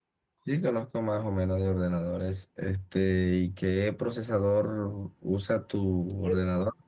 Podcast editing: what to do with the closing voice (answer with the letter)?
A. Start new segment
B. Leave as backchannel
A